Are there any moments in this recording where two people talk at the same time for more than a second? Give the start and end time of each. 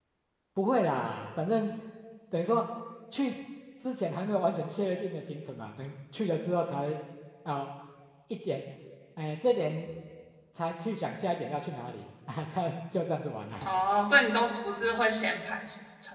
none

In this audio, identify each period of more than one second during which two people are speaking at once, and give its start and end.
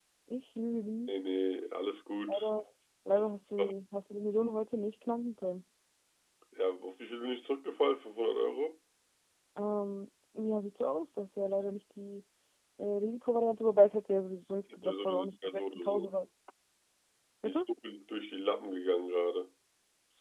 14.8-16.1

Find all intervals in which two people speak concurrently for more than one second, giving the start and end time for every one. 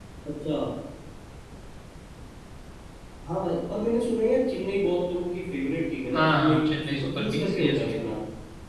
6.2-7.9

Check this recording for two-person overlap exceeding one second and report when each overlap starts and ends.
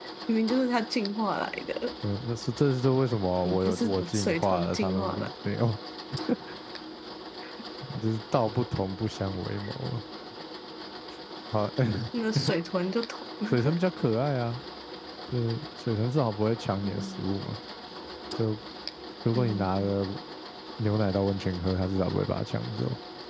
3.5-5.3

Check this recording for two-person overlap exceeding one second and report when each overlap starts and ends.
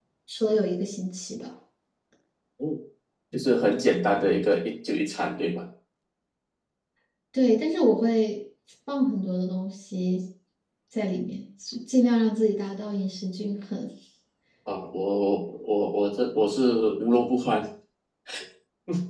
none

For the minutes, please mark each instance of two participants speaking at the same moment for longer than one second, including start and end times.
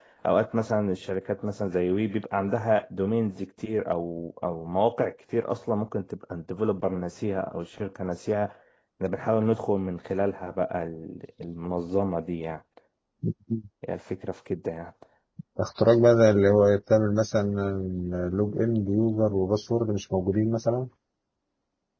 none

